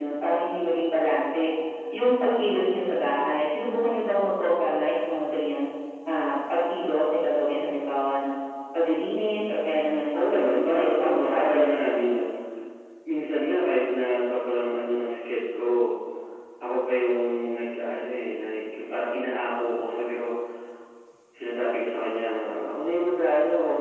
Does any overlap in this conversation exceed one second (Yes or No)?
Yes